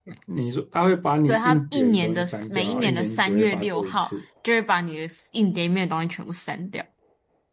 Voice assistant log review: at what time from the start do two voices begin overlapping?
1.3 s

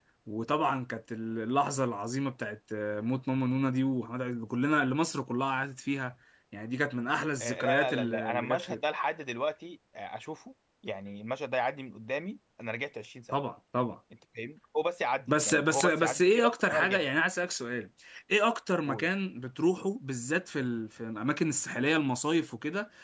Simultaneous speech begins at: 7.4 s

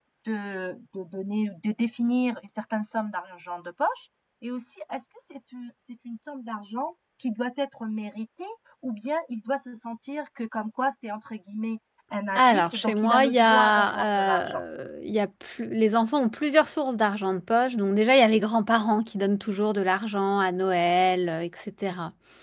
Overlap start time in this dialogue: 12.4 s

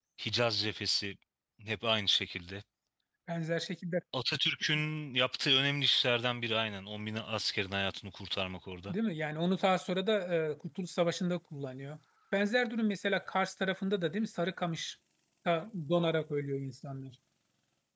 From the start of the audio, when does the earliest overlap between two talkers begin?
none

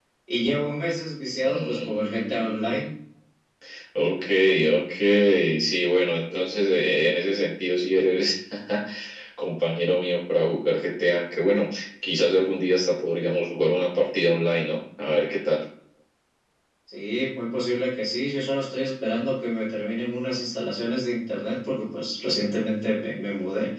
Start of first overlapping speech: 1.4 s

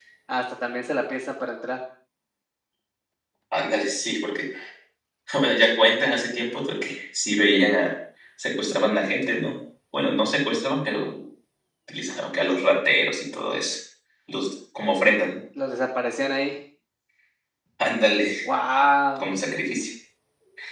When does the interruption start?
none

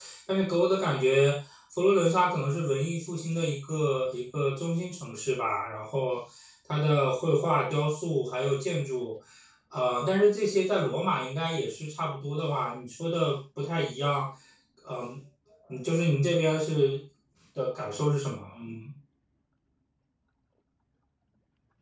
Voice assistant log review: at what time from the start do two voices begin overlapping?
none

